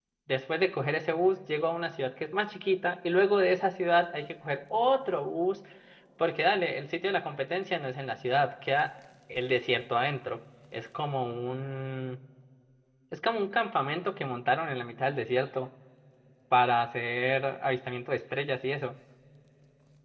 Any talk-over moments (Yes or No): No